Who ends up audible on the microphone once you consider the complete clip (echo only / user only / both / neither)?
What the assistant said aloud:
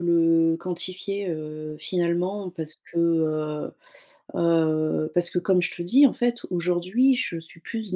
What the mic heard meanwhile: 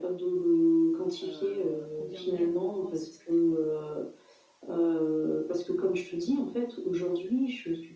both